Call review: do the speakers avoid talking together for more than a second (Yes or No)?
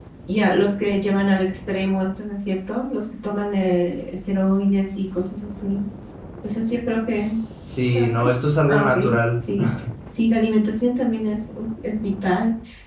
Yes